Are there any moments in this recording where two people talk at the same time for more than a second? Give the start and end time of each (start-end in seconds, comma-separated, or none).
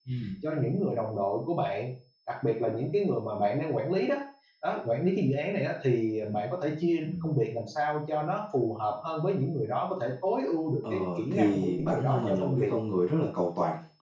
10.9-12.7